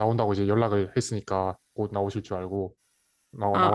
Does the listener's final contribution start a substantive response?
Yes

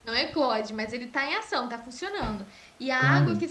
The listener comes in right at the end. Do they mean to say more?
No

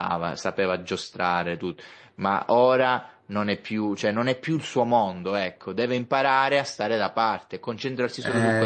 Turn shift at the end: Yes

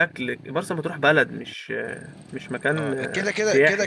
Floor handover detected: Yes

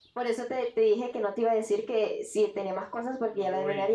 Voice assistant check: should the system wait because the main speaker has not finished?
No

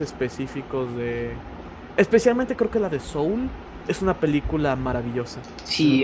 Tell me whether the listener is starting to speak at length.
Yes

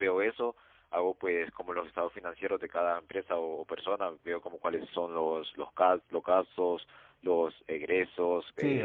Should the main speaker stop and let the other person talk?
Yes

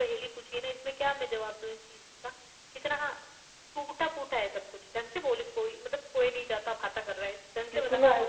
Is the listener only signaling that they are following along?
No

